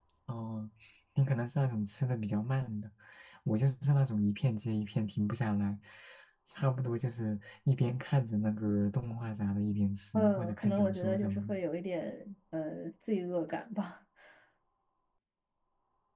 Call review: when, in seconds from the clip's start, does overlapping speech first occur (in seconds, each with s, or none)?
10.1 s